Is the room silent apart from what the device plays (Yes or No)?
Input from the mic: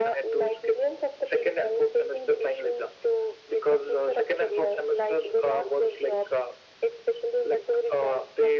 Yes